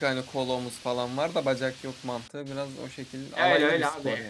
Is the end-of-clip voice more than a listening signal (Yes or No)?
Yes